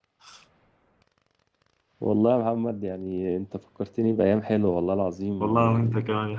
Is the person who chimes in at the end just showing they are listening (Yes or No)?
No